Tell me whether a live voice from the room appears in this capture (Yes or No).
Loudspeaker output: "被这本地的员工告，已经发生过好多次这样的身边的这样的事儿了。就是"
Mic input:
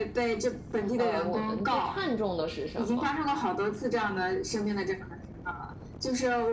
Yes